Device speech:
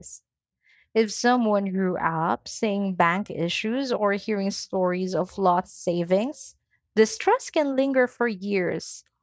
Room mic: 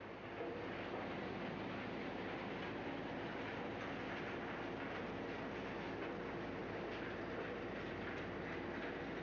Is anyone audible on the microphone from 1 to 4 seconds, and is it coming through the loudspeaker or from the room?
neither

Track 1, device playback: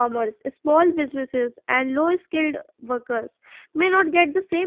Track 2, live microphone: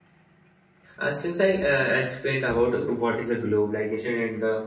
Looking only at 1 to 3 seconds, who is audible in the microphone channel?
user only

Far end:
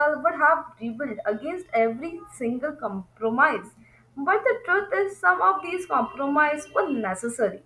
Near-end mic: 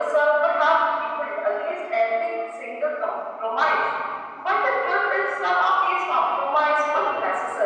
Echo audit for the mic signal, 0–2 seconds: echo only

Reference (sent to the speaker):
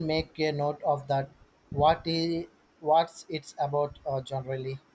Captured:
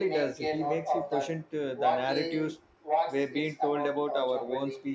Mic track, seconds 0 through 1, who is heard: both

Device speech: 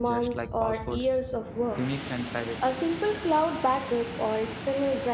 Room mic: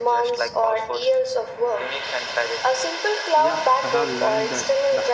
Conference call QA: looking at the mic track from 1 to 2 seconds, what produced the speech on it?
echo only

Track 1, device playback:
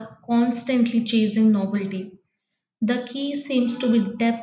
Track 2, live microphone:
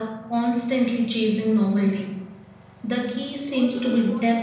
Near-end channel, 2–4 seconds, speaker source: both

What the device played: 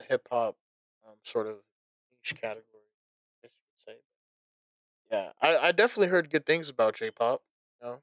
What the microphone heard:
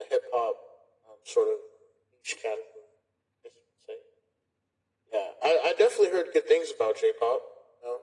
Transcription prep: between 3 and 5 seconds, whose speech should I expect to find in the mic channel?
echo only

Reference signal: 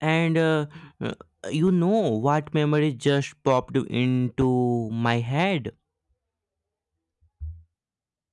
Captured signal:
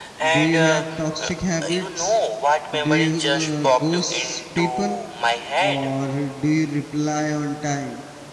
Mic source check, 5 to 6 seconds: both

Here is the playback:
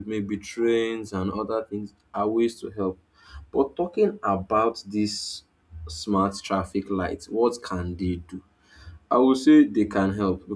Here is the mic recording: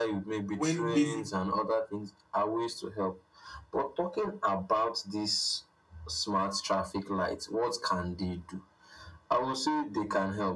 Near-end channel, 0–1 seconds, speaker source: both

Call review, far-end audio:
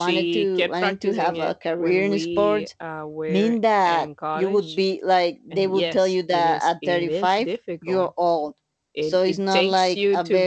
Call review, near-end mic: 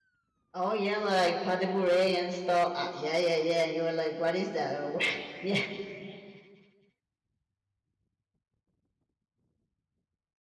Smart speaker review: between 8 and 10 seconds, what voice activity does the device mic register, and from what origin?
neither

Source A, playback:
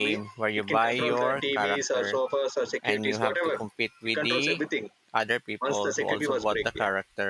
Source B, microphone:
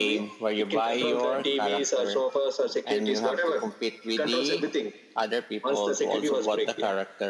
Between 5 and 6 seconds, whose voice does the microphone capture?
echo only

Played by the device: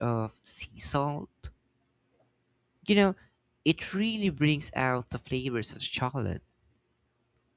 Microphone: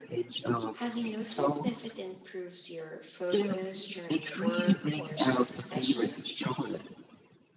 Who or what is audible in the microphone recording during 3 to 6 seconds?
both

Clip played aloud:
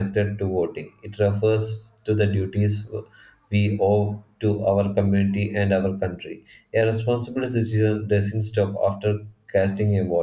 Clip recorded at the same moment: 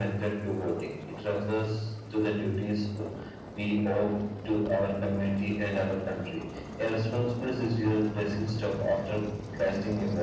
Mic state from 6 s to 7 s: echo only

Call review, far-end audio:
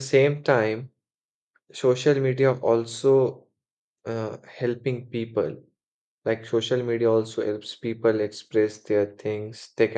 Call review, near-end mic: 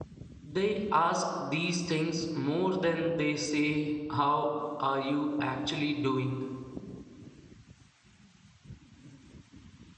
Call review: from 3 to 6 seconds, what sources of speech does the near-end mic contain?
user only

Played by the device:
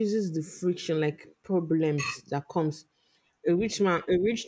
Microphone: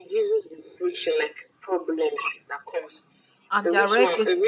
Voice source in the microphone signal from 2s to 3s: echo only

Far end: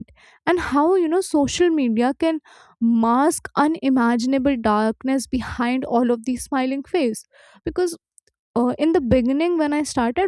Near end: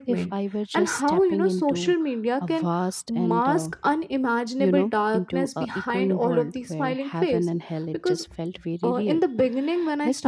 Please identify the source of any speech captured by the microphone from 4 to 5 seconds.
both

